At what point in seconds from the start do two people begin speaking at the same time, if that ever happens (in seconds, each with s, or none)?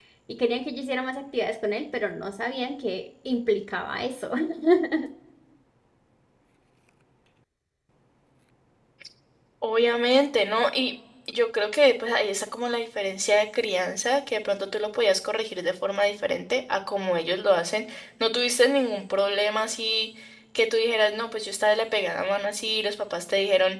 none